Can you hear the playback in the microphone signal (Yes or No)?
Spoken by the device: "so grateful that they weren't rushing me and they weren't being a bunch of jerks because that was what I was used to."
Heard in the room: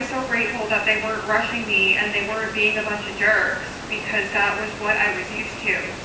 Yes